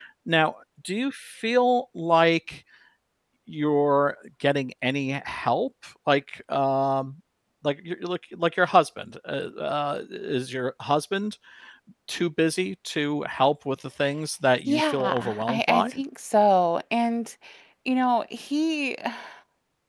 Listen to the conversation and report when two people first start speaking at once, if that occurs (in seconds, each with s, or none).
14.7 s